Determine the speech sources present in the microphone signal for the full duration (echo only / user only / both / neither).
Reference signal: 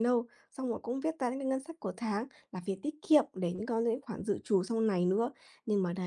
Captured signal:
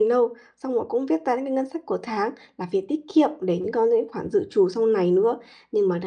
echo only